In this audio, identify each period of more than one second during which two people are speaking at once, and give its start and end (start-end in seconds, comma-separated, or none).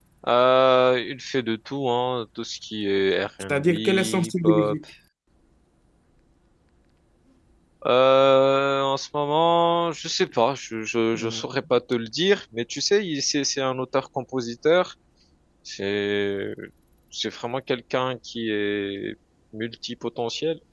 3.5-4.8